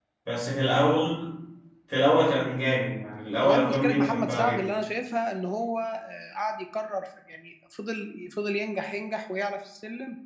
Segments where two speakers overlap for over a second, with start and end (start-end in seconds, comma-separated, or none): 3.4-4.6